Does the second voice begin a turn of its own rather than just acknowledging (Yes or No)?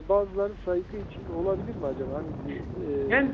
Yes